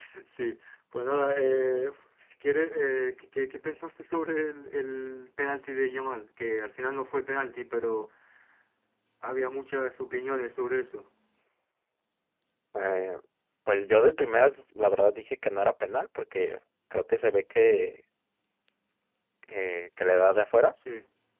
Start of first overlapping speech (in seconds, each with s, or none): none